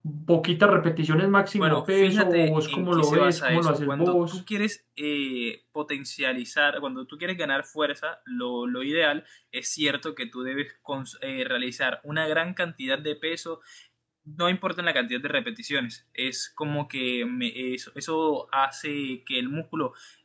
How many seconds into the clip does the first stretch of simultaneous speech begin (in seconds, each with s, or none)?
1.6 s